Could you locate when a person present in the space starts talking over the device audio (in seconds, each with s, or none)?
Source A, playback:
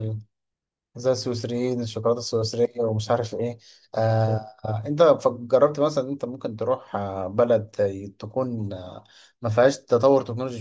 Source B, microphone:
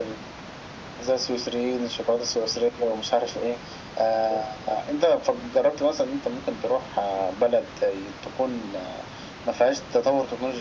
none